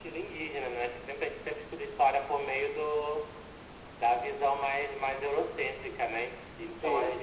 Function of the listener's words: listening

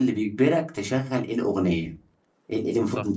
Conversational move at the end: listening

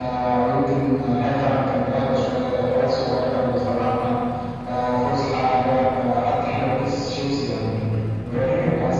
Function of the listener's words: listening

